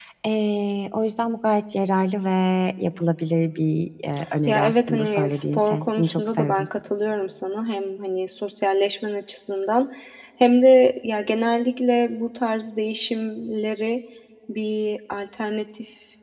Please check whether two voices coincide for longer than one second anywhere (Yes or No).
Yes